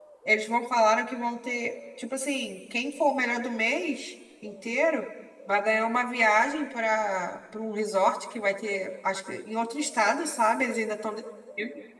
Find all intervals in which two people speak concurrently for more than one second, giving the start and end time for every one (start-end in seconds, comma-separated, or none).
none